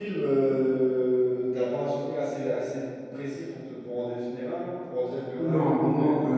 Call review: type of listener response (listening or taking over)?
taking over